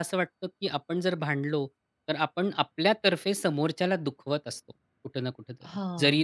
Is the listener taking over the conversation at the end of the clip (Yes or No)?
No